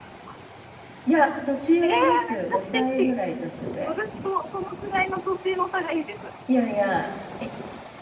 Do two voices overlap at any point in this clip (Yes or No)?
Yes